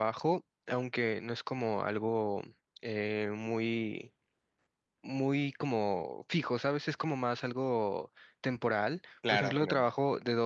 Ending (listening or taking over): listening